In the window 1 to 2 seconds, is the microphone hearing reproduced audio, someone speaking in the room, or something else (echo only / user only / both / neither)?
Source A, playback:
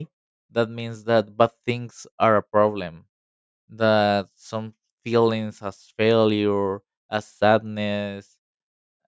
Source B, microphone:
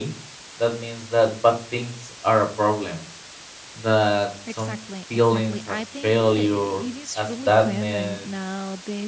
echo only